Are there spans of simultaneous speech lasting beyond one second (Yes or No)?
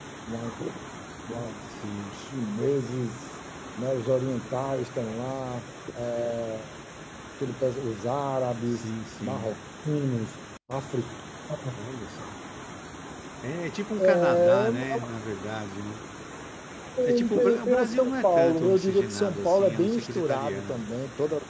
Yes